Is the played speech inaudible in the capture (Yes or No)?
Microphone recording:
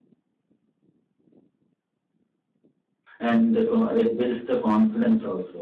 Yes